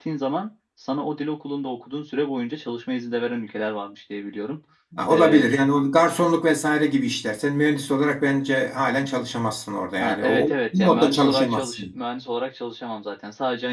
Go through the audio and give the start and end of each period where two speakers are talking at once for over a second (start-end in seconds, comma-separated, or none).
10.0-11.9